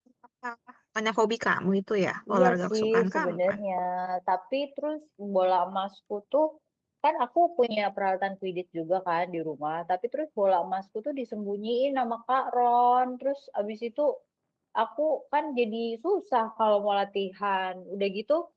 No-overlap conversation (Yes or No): No